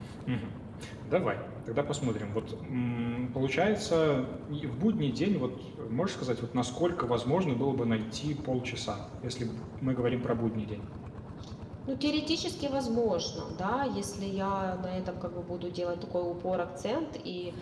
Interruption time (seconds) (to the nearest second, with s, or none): none